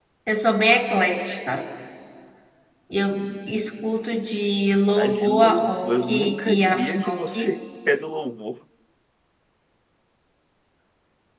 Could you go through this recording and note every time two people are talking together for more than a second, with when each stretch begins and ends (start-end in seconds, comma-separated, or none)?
5.0-7.5